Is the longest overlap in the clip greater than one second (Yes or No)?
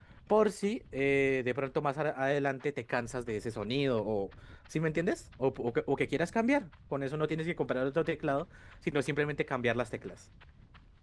No